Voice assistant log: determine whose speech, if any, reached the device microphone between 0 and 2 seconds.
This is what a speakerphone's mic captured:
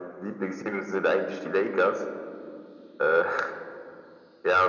echo only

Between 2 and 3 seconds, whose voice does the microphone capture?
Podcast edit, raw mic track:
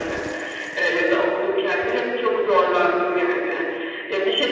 echo only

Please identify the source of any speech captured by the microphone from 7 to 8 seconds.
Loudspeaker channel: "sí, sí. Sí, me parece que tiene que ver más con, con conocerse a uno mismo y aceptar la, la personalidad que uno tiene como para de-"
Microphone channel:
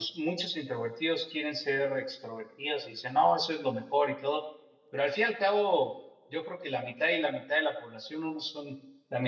user only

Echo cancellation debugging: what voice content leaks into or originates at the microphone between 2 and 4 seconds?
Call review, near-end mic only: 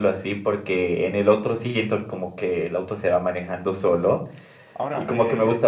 echo only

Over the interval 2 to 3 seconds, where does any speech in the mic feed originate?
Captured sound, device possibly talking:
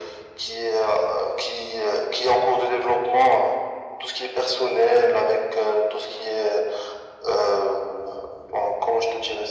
echo only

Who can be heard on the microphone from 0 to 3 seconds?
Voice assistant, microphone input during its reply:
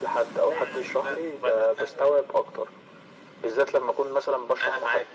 echo only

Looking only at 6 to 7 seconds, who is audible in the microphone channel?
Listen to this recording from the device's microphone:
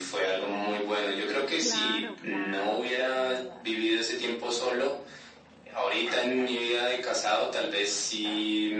echo only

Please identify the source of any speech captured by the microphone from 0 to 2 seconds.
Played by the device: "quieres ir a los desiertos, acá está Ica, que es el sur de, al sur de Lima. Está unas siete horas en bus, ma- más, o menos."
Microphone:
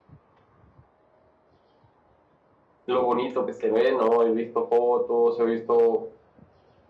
neither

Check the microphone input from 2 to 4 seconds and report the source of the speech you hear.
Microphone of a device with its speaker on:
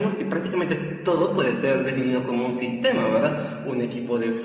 echo only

